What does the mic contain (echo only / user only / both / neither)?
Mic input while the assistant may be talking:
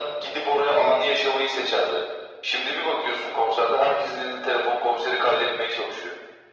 echo only